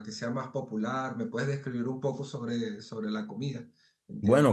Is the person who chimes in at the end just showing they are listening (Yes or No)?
No